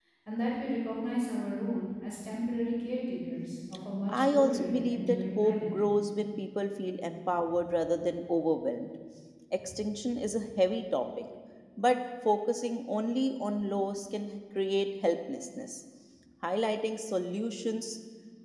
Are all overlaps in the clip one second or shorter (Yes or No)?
No